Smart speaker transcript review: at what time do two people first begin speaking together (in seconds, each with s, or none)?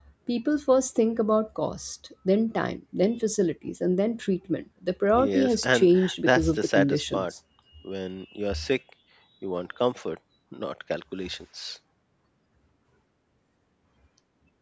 5.2 s